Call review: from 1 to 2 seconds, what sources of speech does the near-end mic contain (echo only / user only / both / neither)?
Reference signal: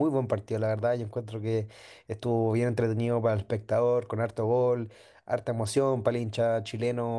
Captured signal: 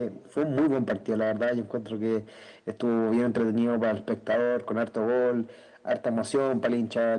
echo only